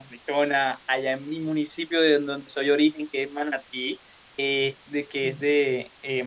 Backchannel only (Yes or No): Yes